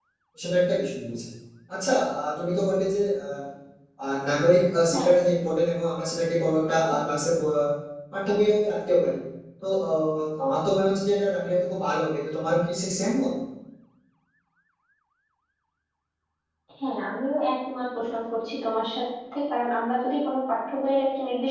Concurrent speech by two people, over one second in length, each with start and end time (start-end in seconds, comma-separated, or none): none